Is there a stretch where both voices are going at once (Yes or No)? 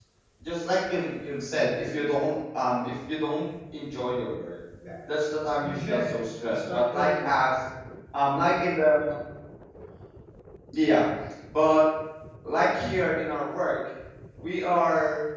Yes